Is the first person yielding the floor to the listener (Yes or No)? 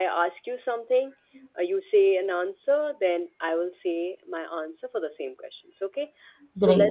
No